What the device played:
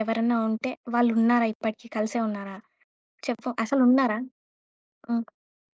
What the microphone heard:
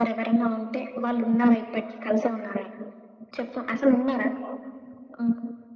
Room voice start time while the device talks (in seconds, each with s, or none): none